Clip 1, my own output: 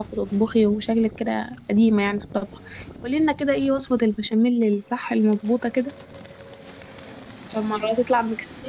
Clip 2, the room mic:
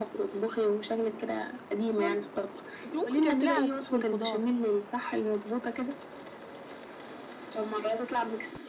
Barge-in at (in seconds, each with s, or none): 1.9 s